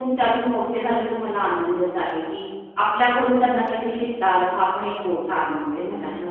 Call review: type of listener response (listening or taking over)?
taking over